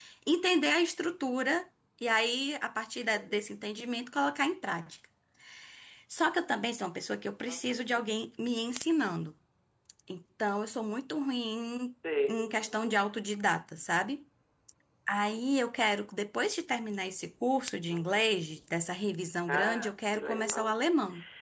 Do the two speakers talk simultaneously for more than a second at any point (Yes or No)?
Yes